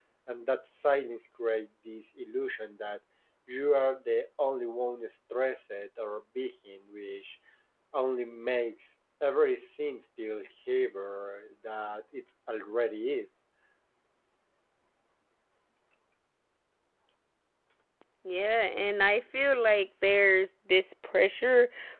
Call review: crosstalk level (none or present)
none